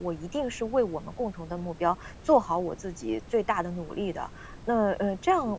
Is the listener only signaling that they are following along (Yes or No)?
Yes